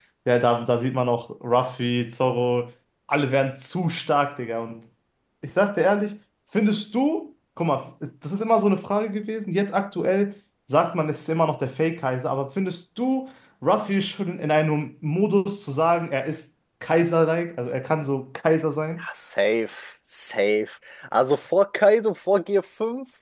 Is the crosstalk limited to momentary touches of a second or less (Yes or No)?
Yes